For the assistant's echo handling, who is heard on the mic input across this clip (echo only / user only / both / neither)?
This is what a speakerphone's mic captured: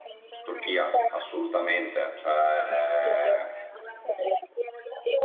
both